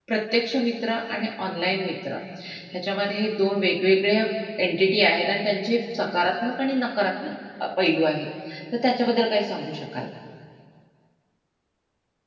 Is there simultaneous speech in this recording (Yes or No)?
No